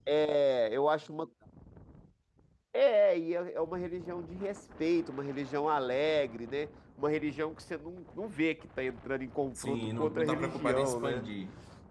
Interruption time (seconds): 9.6 s

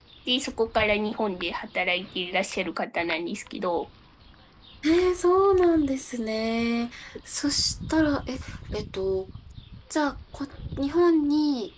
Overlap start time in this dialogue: none

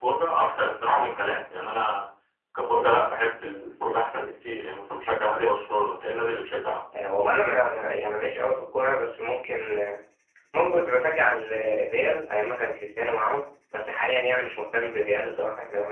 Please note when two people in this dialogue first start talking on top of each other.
none

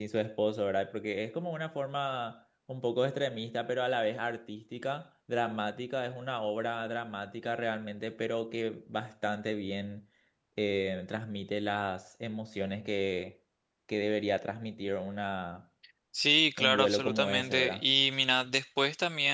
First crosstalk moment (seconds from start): 16.6 s

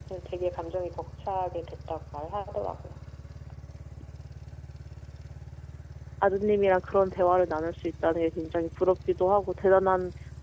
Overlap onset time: none

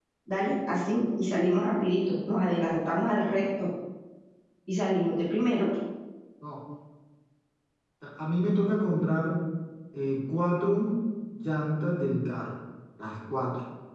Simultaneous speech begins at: none

